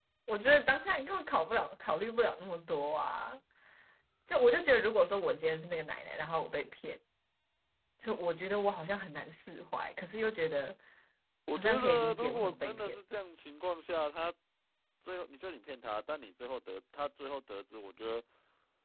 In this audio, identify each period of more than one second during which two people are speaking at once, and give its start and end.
11.5-13.0

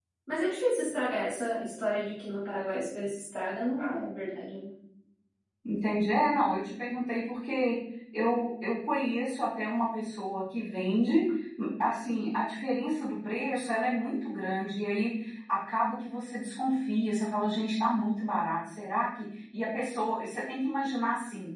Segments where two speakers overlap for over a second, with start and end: none

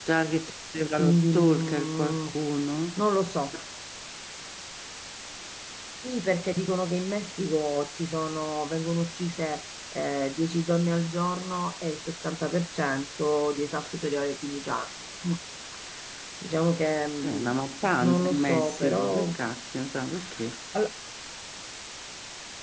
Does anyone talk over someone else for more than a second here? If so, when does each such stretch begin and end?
0.9-2.4, 18.0-19.4

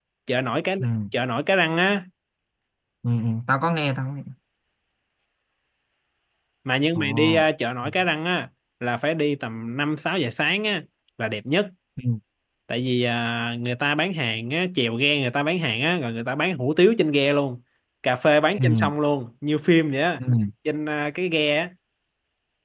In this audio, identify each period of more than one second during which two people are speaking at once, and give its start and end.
none

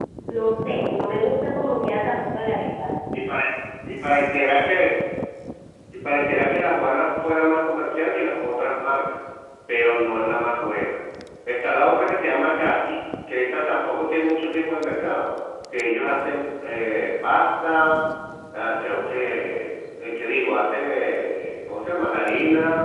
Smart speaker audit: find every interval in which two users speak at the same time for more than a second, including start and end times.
none

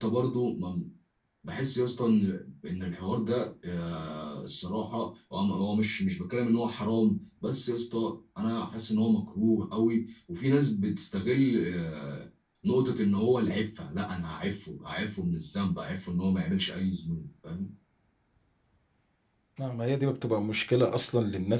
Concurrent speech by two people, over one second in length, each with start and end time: none

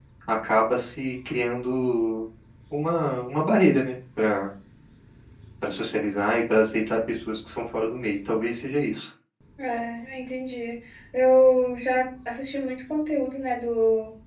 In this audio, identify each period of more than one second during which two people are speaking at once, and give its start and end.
none

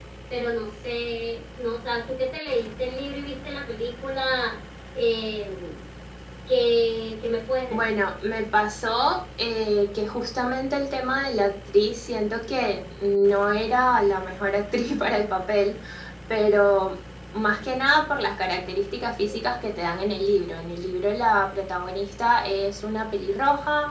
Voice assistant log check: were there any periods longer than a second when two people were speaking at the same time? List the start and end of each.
none

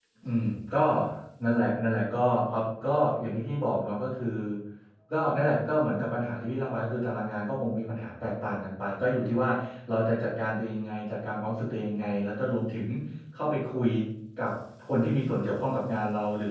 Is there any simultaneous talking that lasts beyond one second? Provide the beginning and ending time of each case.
none

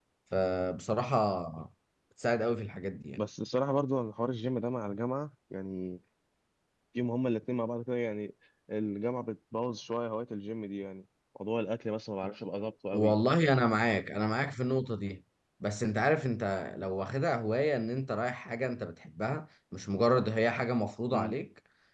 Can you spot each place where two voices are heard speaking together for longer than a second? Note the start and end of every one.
none

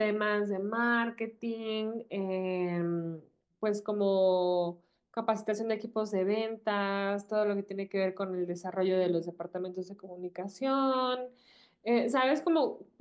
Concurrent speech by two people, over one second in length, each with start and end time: none

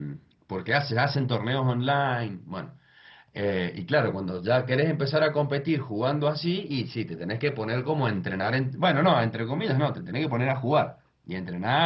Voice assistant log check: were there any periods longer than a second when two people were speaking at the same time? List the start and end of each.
none

